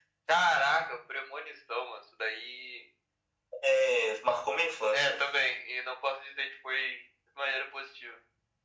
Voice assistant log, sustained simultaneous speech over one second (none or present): none